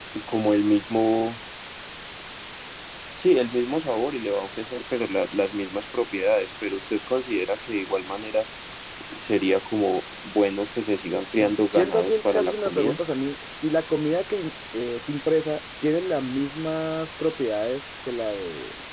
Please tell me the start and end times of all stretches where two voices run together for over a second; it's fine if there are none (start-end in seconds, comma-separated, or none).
11.7-13.0